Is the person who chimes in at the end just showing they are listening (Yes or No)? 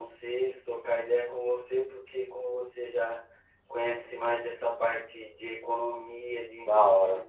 Yes